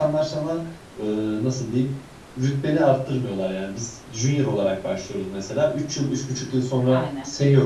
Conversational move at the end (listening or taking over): listening